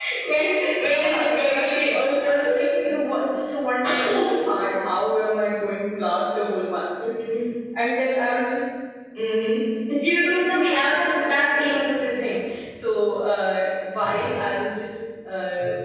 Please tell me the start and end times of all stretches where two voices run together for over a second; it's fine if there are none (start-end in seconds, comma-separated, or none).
0.8-2.5, 10.4-11.8